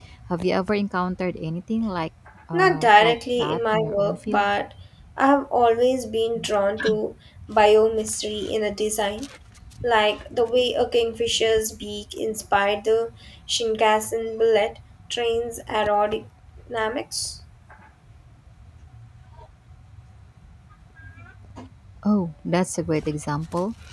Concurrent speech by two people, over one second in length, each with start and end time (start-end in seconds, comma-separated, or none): 2.5-4.5